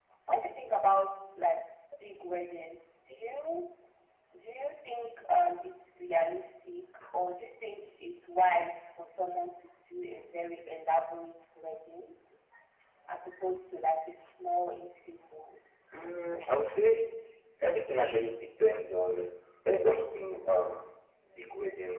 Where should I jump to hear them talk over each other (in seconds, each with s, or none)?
none